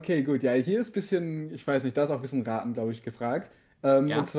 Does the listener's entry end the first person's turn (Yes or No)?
No